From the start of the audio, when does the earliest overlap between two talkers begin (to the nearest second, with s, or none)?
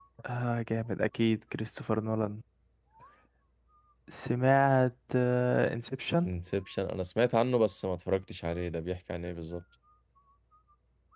none